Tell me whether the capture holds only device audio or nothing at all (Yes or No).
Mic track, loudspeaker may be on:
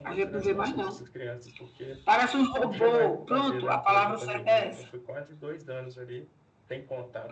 No